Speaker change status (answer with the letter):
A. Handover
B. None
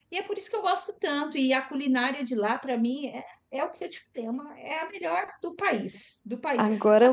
A